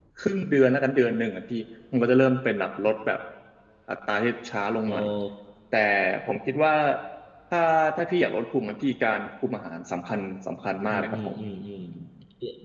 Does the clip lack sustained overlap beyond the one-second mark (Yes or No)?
Yes